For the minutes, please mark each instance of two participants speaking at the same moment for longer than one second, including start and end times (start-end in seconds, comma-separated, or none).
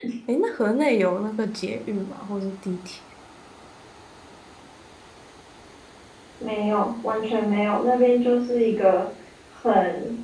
none